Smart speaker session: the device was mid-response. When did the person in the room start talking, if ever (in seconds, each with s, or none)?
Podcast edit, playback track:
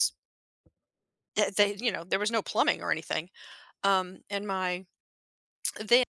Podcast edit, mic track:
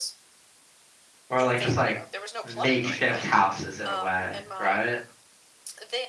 1.3 s